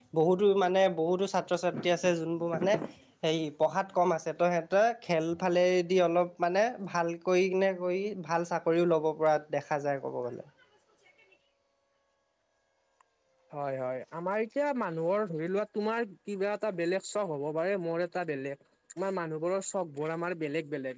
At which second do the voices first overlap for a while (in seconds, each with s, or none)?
none